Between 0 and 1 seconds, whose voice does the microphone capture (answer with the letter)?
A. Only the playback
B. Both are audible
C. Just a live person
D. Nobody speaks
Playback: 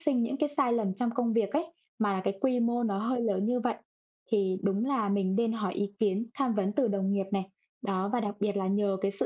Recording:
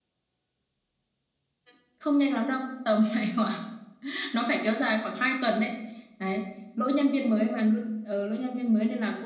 D